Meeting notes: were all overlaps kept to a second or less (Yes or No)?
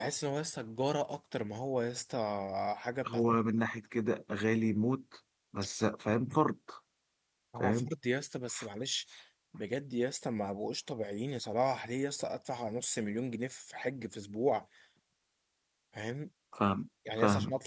Yes